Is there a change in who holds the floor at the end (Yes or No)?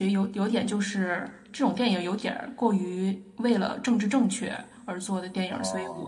No